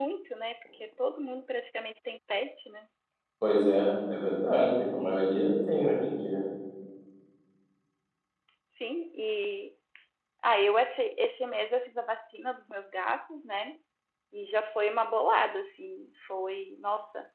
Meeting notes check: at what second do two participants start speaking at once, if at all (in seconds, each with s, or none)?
none